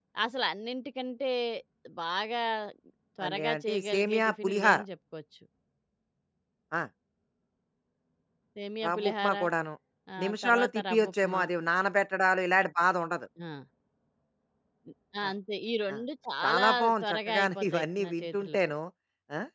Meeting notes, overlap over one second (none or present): present